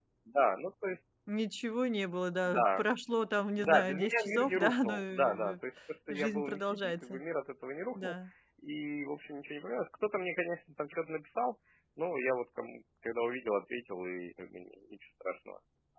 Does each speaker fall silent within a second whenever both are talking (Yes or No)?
No